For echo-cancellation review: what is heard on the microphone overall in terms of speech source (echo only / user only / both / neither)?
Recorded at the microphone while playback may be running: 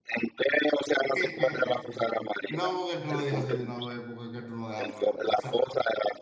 both